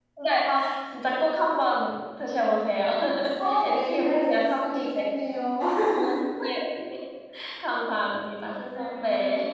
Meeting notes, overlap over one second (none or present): present